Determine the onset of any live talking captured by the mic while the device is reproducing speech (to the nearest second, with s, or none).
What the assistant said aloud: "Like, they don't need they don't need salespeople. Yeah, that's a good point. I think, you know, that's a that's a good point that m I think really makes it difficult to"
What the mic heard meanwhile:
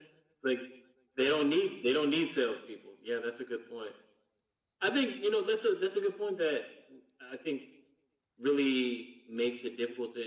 none